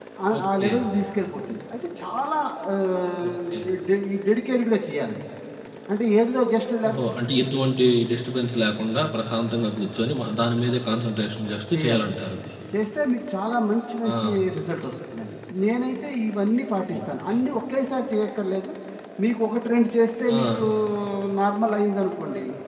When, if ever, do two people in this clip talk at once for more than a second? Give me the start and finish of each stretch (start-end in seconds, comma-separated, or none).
none